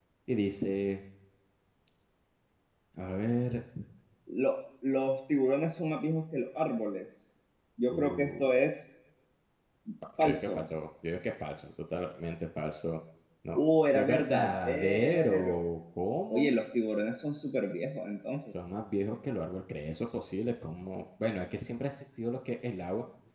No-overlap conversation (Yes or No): No